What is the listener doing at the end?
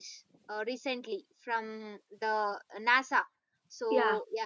listening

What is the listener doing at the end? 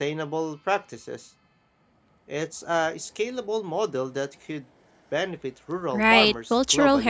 taking over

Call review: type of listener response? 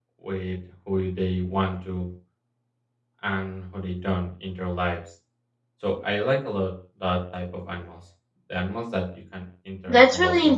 taking over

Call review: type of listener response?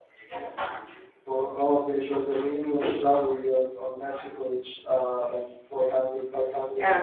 taking over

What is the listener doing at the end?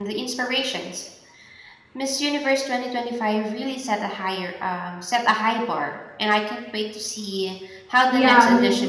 taking over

